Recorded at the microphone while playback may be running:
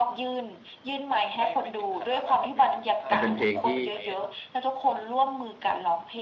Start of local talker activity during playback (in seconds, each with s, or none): 3.1 s